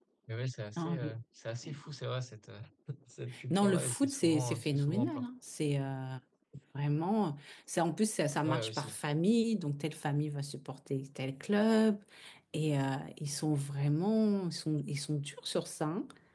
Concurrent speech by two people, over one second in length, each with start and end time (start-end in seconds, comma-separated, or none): 3.5-5.2